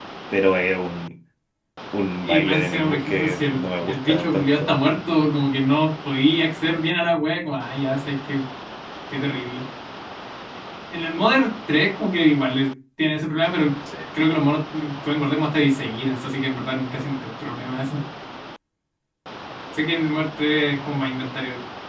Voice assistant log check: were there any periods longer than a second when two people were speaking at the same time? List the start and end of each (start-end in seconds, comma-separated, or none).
2.2-4.8